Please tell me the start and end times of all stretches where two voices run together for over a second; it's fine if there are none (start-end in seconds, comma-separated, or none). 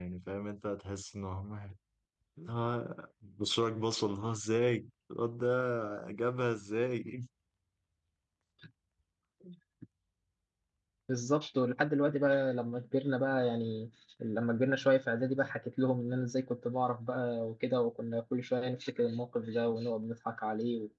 none